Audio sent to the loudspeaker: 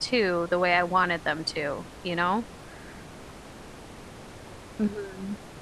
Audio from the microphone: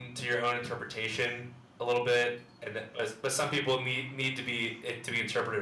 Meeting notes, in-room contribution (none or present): present